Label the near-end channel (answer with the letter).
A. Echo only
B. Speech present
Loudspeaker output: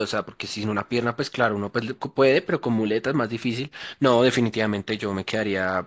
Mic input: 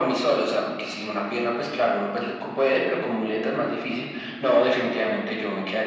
A